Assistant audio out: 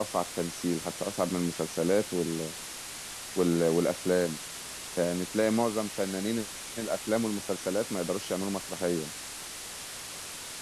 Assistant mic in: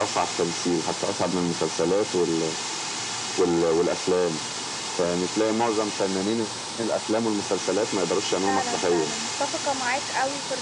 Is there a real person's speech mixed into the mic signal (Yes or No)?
Yes